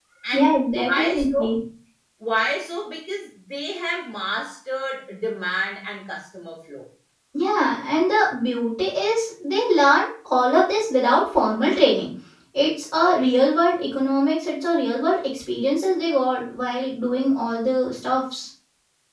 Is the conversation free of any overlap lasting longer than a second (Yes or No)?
No